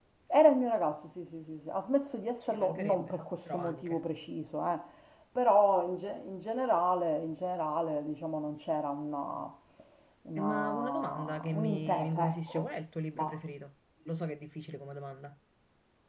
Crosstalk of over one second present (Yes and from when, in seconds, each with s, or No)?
Yes, from 2.5 s